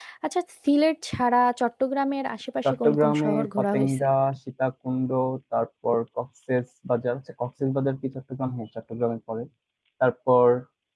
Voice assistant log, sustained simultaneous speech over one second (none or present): present